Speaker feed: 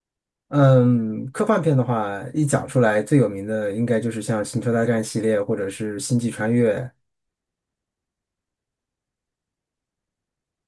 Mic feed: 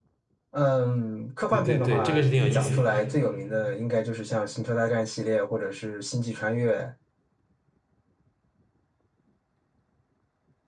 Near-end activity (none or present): present